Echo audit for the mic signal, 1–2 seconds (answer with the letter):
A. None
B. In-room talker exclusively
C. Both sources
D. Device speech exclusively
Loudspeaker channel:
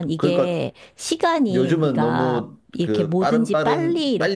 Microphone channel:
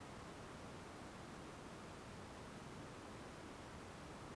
A